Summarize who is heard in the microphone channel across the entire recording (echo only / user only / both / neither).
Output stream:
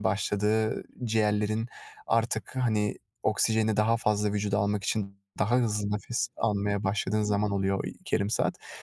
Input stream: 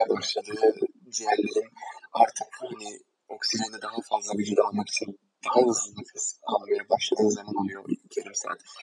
echo only